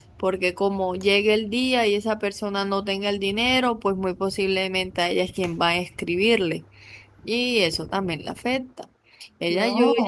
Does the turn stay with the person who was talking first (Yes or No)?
Yes